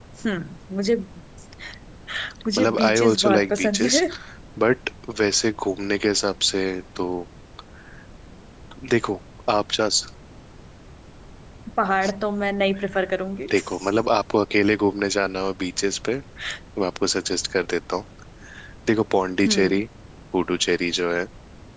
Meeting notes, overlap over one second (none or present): present